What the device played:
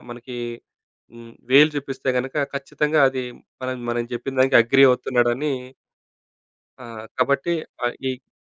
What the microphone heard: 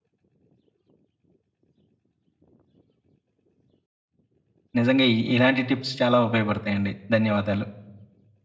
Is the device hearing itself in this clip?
No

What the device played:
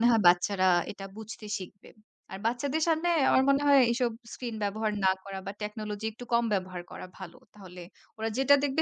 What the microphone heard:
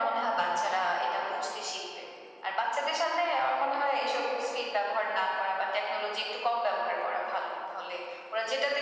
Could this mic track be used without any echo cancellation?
No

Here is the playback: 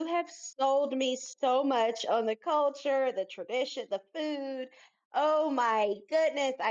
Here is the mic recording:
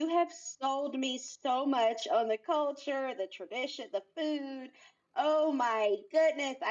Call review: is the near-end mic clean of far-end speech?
No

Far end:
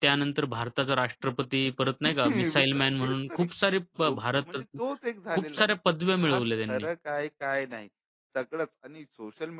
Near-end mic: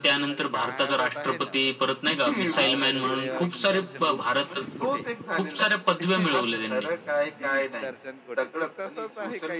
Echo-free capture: No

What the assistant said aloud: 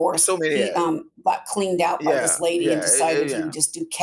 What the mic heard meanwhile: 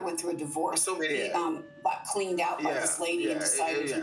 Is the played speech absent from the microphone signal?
No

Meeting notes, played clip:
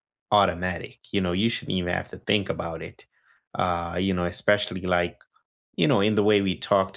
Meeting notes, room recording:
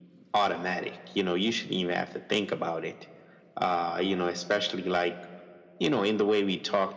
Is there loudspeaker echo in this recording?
Yes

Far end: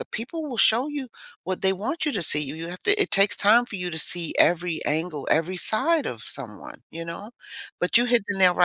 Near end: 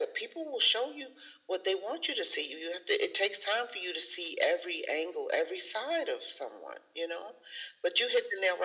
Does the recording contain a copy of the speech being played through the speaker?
Yes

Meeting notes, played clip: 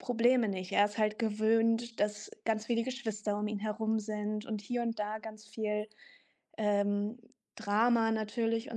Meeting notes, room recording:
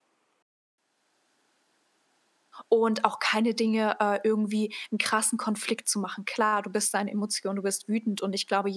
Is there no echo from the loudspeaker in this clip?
Yes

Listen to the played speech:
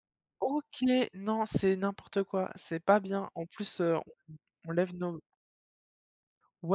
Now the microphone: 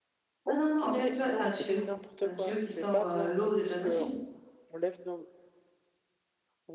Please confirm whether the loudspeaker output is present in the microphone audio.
Yes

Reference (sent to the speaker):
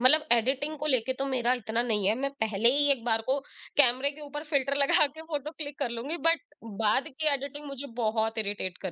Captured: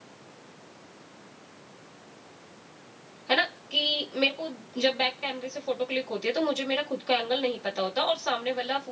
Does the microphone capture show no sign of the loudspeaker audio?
Yes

